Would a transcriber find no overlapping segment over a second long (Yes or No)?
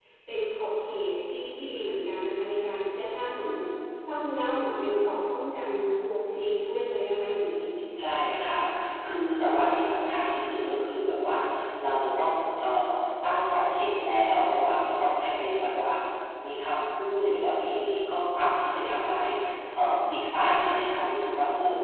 Yes